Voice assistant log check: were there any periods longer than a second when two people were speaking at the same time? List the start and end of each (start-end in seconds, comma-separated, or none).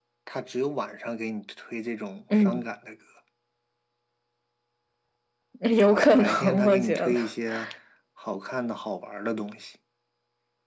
5.9-7.1